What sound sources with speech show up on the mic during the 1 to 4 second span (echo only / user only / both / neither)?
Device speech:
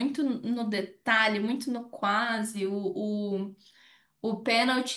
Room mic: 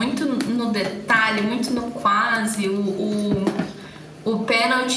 echo only